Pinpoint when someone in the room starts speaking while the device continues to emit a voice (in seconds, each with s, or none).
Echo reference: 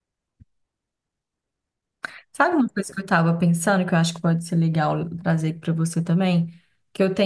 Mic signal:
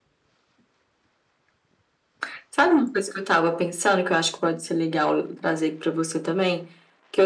none